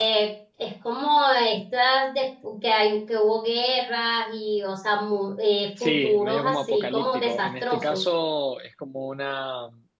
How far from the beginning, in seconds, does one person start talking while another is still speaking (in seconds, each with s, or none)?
5.8 s